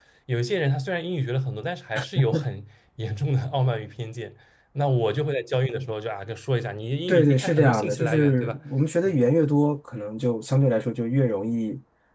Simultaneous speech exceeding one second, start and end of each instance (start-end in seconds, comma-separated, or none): 7.1-8.6